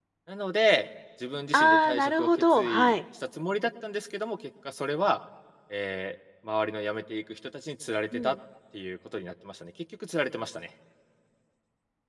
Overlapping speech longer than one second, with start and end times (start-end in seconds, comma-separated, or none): 1.5-2.9